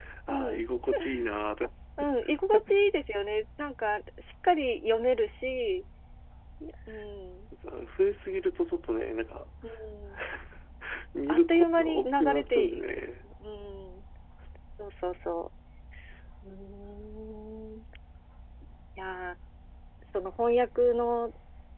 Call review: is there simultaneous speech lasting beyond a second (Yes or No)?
Yes